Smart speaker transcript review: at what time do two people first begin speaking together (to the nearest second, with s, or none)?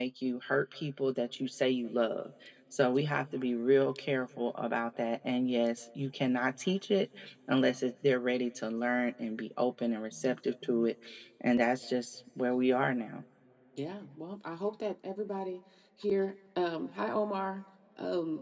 none